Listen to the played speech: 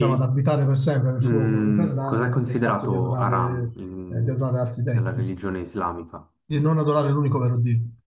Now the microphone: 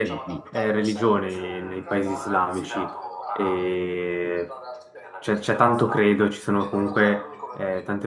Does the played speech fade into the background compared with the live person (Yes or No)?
Yes